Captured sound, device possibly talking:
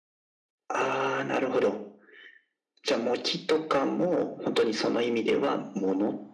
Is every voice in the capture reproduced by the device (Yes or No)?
Yes